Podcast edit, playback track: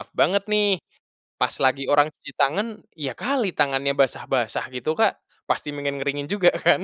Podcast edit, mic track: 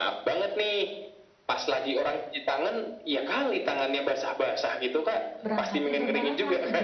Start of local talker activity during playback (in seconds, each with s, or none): 5.4 s